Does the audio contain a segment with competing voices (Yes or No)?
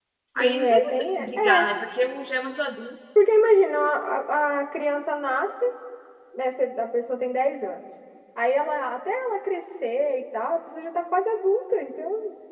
Yes